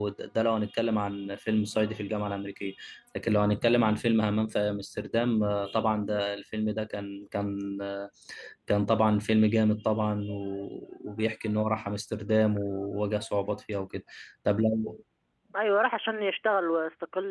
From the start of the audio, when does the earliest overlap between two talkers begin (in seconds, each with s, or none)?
none